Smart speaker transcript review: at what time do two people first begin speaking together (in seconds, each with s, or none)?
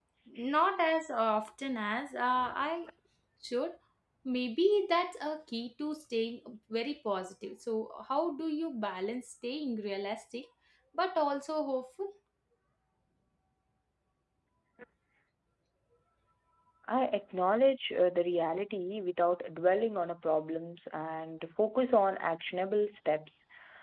none